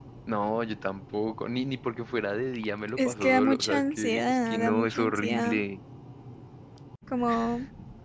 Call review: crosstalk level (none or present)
present